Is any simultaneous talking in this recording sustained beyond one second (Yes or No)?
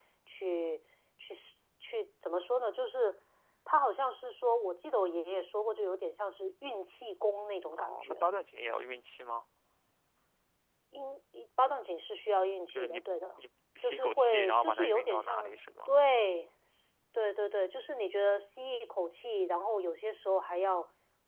Yes